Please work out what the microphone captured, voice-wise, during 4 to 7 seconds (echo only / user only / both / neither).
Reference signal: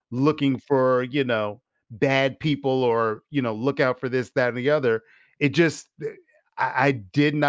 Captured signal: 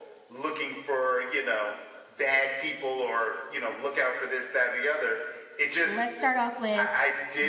both